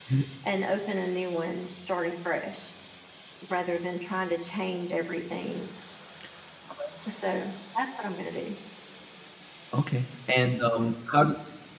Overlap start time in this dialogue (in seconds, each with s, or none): none